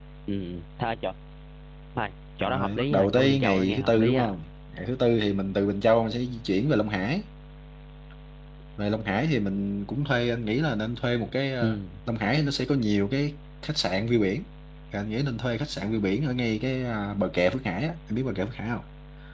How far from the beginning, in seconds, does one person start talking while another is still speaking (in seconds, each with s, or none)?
2.4 s